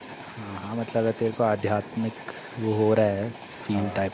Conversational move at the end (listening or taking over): listening